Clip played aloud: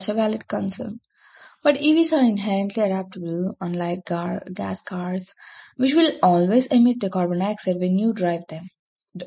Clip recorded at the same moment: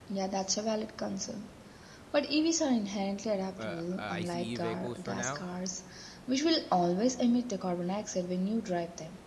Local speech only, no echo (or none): uh, ICE vehicles for now.